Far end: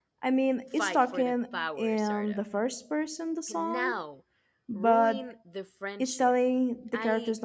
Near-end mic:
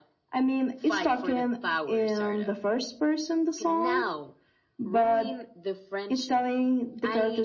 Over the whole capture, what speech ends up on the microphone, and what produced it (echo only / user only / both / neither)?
echo only